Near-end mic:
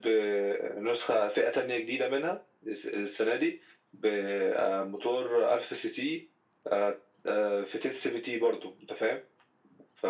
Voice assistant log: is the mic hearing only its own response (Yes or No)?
Yes